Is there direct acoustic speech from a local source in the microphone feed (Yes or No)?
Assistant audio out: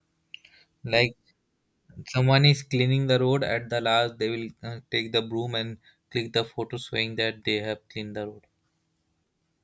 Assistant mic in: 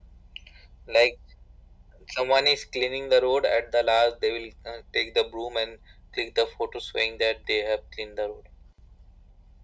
No